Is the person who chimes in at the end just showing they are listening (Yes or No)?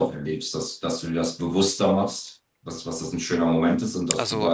Yes